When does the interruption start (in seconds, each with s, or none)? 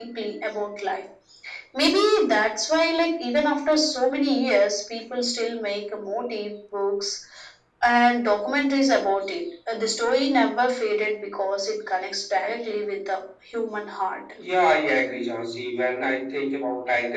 none